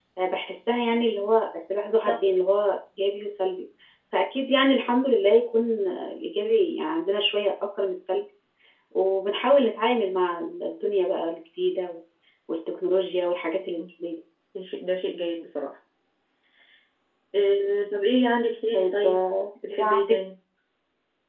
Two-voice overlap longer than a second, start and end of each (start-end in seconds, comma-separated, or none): none